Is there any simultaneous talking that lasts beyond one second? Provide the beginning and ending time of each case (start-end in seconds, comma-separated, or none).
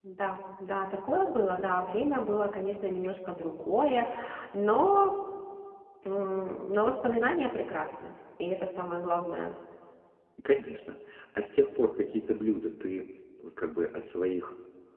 none